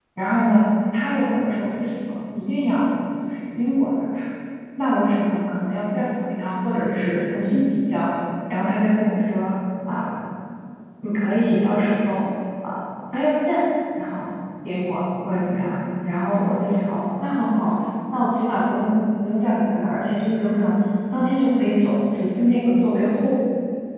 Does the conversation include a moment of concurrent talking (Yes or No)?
No